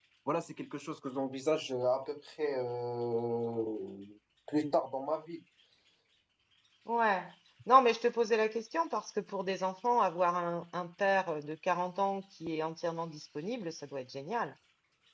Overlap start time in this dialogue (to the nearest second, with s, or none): none